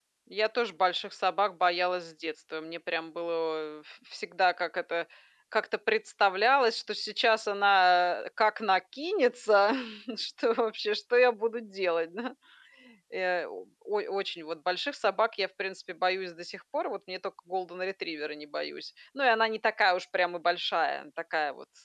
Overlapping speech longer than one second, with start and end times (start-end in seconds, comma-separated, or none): none